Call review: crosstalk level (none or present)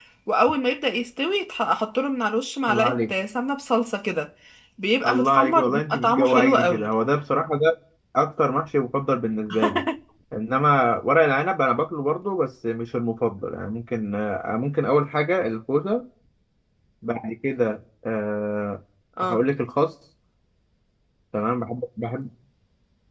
present